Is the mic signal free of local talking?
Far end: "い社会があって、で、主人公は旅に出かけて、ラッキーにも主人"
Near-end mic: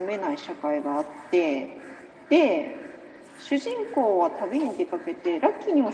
Yes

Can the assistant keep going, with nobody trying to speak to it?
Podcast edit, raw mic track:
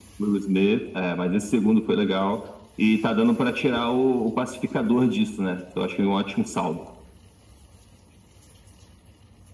Yes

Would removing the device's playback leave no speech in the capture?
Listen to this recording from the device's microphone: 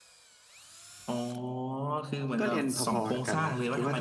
No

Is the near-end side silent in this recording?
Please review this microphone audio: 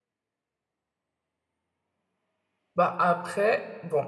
No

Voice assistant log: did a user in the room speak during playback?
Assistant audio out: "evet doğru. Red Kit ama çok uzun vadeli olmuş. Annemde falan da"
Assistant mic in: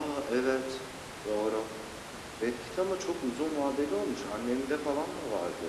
No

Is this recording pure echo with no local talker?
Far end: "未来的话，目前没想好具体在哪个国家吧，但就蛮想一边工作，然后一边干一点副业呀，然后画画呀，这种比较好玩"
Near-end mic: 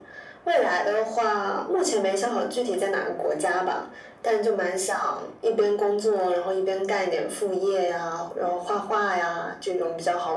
Yes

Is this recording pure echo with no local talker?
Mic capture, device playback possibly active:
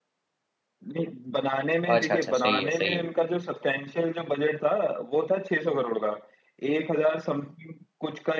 No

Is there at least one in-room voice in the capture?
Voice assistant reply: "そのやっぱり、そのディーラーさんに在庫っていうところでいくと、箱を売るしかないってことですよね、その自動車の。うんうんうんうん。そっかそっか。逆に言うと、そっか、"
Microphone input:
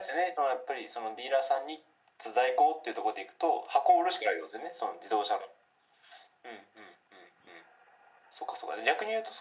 No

